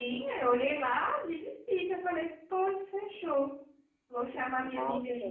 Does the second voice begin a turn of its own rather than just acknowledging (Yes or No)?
No